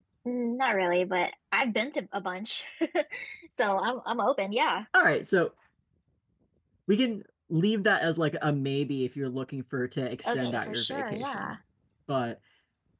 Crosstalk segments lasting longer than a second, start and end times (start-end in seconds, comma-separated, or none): 10.2-11.5